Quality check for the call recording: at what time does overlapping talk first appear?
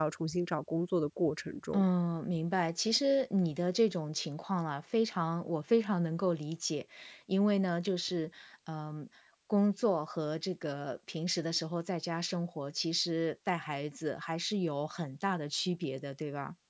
none

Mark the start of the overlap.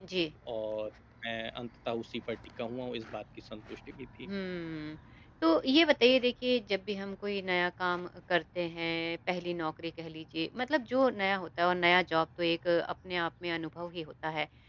none

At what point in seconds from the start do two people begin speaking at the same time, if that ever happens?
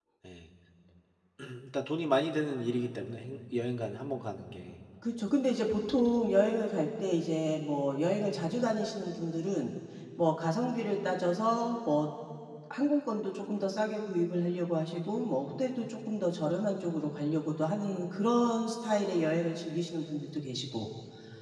none

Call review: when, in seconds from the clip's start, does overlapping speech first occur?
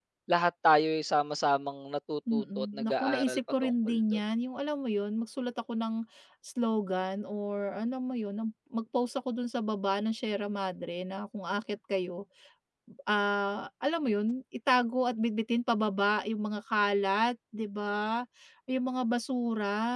2 s

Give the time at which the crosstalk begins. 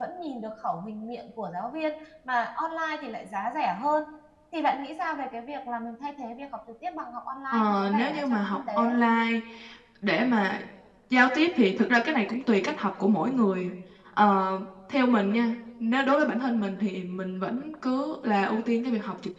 8 s

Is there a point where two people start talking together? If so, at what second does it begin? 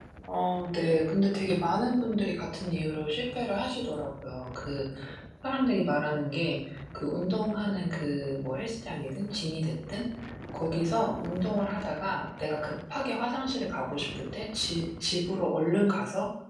none

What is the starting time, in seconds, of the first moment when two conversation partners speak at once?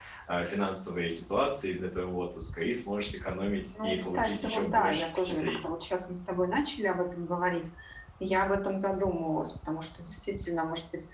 4 s

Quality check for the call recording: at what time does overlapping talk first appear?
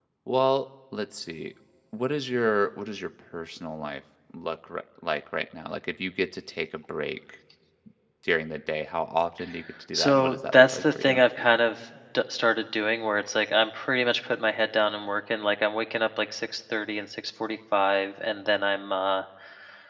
10 s

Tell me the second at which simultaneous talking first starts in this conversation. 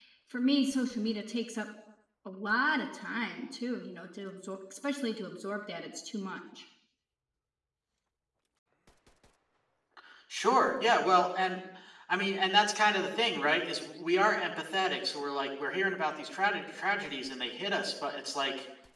none

